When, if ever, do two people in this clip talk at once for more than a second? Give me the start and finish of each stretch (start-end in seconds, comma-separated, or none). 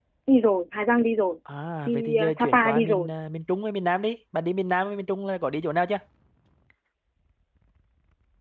1.9-3.1